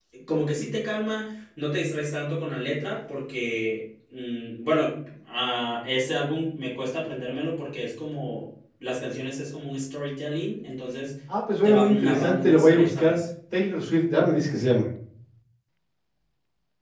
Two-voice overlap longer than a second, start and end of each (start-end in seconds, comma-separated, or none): 11.6-13.2